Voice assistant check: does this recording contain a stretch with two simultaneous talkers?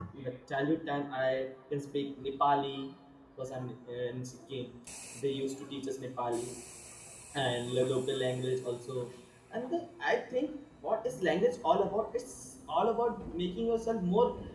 No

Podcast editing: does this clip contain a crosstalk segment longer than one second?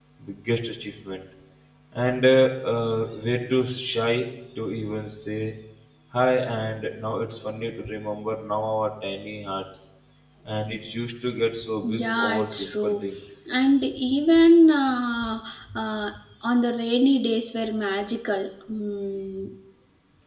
Yes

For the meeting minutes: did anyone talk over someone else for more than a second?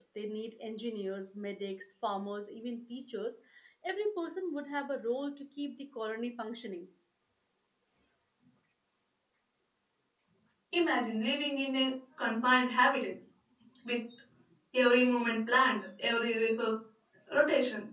No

